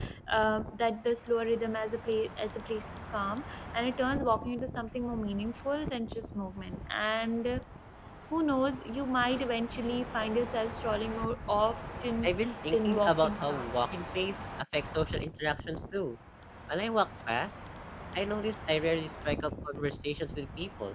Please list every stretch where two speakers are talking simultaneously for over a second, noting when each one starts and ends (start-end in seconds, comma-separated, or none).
12.7-13.9